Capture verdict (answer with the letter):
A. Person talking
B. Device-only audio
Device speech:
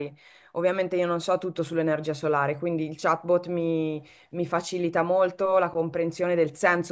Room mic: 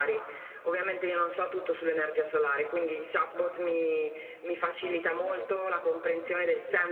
A